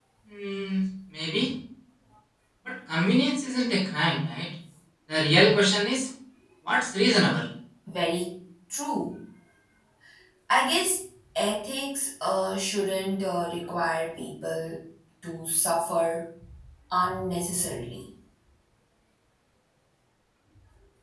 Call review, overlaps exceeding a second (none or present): none